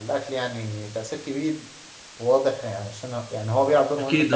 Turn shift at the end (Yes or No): Yes